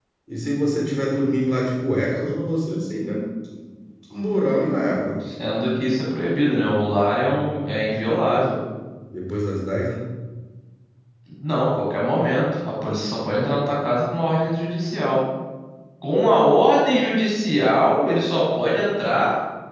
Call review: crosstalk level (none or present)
none